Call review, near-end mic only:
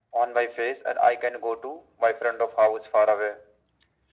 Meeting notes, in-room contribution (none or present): none